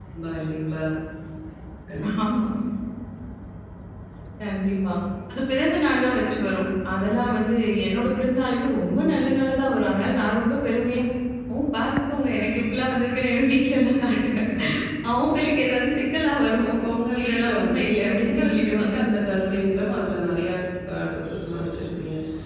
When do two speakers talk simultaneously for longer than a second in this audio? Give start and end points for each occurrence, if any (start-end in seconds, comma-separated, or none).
17.2-18.9